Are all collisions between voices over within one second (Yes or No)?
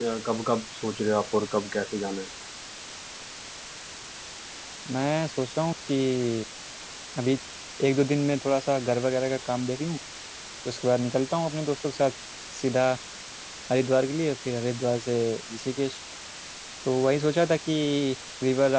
Yes